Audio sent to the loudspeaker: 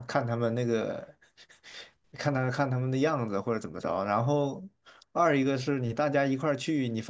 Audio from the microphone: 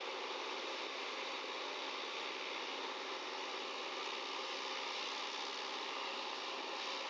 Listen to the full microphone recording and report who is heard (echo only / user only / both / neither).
neither